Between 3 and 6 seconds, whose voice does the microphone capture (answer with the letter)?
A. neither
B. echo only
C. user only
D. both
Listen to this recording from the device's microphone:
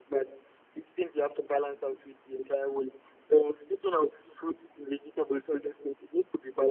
B